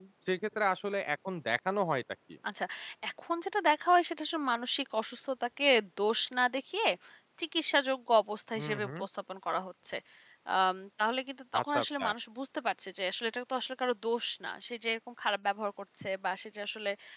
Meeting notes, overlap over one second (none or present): none